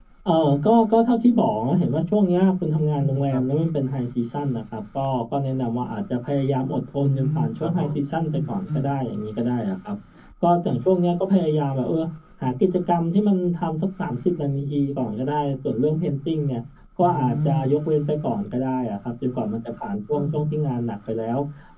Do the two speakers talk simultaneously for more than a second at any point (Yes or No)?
Yes